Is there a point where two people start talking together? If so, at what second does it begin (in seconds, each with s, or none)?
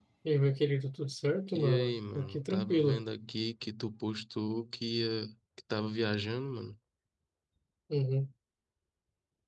1.5 s